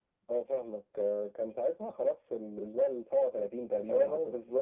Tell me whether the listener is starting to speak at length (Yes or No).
Yes